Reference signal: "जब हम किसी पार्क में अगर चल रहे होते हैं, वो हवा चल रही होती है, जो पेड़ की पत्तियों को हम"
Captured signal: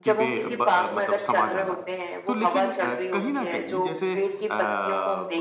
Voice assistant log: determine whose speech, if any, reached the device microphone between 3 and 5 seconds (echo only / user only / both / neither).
both